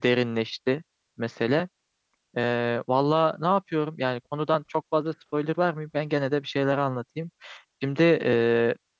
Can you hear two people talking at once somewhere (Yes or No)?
No